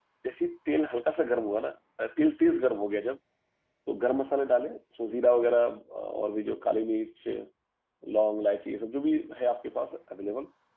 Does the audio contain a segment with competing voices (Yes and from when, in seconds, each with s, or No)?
No